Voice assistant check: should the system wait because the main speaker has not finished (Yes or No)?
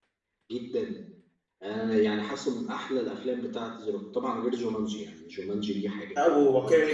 No